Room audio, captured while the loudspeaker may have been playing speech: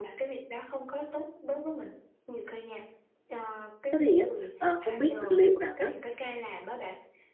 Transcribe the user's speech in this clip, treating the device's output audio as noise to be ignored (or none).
Thế thì á, ờ, không biết liệu rằng á